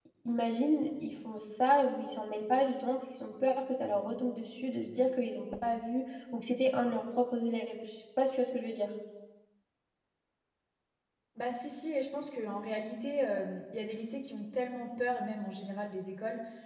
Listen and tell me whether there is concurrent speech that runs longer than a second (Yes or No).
No